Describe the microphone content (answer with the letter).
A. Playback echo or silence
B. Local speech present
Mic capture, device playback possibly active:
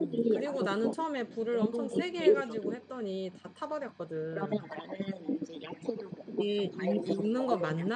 B